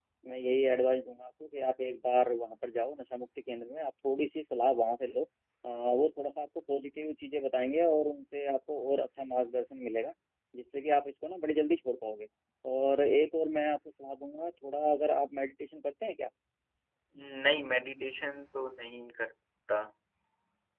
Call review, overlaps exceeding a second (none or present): none